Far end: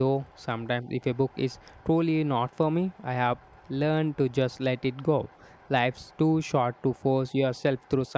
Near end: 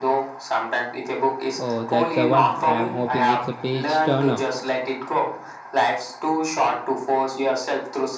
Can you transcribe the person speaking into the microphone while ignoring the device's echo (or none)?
Oh, that's the one. I am hoping it's a page turner.